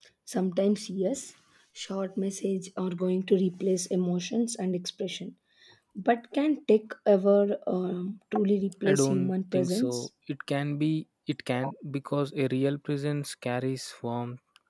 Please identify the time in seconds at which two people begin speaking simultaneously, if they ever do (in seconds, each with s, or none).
8.8 s